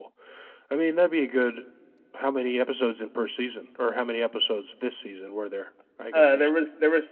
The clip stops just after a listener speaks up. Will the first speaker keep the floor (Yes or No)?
No